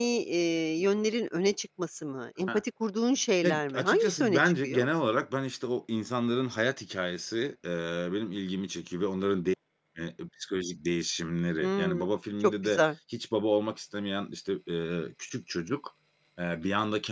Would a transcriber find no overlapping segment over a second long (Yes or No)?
No